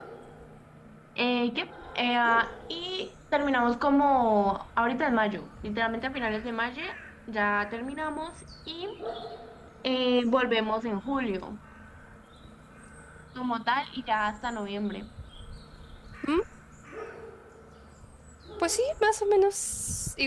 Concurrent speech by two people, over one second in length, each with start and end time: none

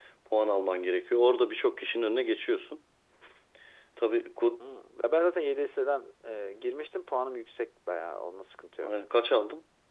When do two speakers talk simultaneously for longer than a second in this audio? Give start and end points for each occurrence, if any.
none

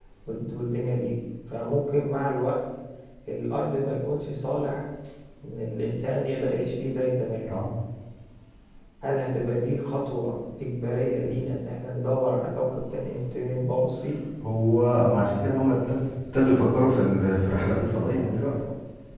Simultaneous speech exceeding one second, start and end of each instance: none

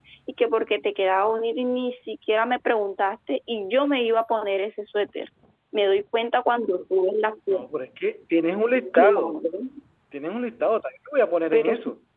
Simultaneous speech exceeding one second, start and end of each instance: none

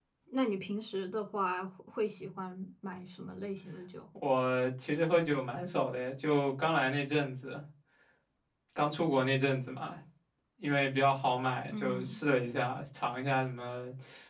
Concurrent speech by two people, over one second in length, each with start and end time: none

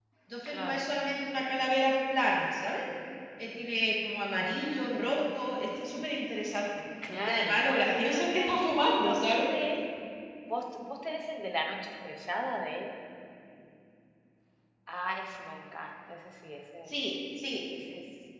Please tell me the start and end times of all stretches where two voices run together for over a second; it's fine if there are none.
7.2-8.6

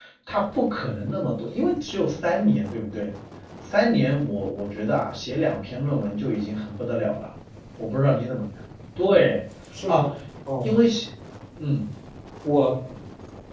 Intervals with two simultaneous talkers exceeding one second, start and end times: none

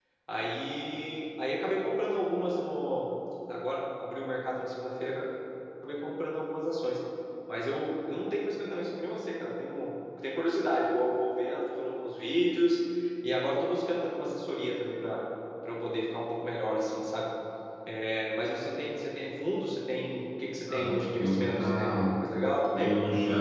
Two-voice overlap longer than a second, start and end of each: 20.6-22.1

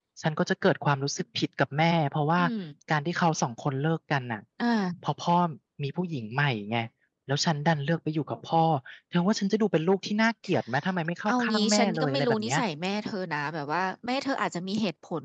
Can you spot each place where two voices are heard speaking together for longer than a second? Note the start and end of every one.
11.3-12.6

